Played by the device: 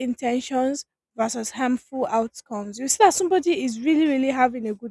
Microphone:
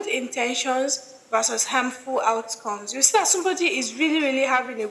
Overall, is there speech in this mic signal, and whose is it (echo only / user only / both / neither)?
echo only